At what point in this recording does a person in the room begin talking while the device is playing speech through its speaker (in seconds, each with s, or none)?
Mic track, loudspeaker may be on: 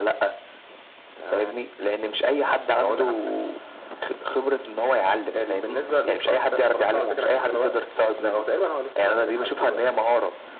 none